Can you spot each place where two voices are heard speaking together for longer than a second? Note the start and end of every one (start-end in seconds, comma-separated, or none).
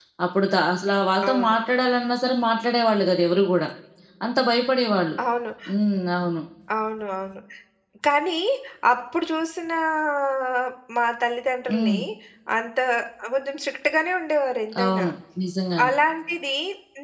none